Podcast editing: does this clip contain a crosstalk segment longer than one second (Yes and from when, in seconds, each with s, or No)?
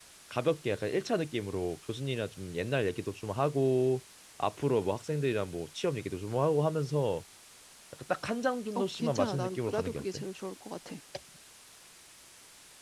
Yes, from 8.7 s